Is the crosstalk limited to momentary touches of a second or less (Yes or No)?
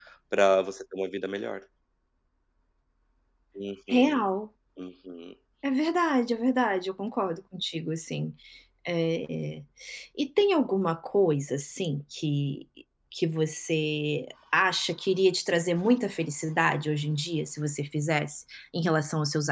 Yes